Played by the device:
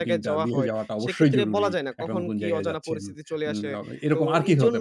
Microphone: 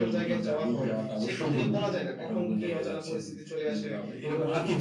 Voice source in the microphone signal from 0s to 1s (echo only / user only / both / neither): echo only